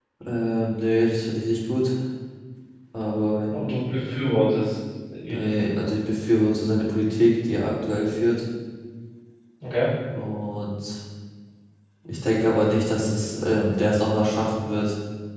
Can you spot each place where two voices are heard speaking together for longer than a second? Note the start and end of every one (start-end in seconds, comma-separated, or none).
none